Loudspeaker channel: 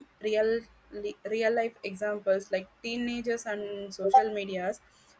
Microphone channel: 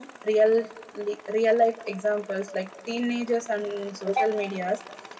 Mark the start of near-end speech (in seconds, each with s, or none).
none